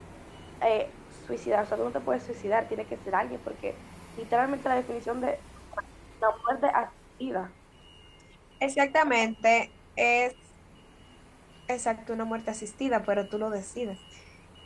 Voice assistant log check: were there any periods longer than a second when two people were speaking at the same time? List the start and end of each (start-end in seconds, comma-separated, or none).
none